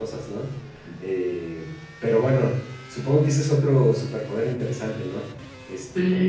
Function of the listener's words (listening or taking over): taking over